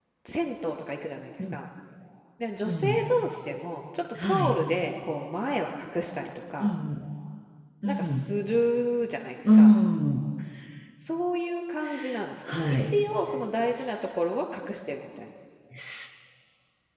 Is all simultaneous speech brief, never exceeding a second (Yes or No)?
Yes